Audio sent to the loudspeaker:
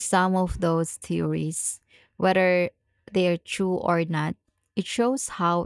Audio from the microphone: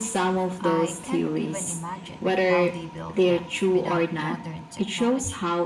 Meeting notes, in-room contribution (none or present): present